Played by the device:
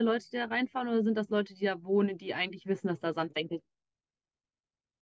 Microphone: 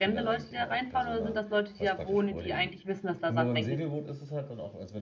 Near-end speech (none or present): present